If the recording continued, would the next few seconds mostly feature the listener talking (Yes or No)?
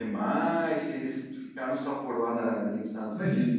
Yes